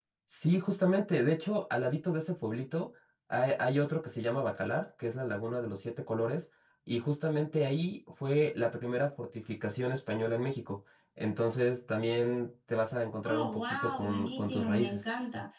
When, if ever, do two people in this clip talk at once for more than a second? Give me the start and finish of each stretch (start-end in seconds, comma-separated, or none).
13.2-15.0